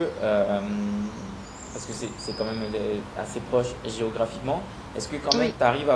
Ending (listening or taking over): listening